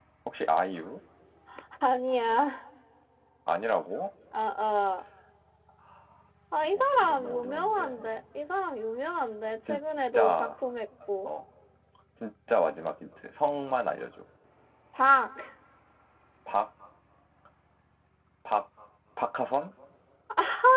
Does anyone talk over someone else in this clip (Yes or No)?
Yes